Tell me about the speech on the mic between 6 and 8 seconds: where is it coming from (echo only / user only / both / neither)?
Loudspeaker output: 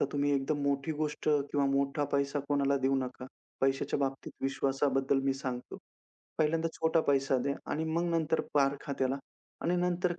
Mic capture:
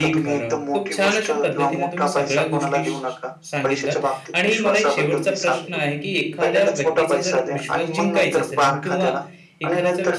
both